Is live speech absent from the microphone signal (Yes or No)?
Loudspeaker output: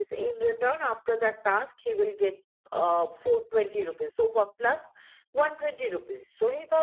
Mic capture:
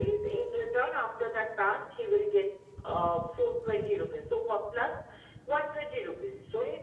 Yes